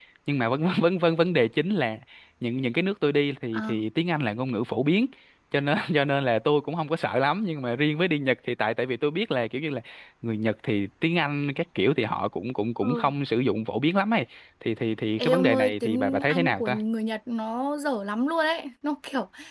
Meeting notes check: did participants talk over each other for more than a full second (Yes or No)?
Yes